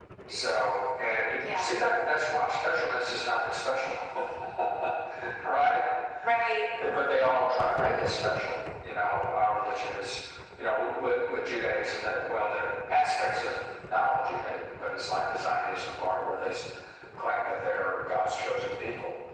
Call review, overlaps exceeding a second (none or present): none